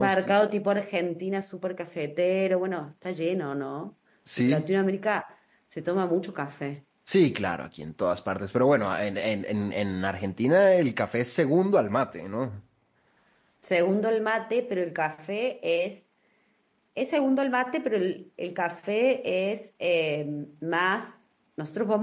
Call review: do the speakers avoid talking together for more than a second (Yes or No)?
Yes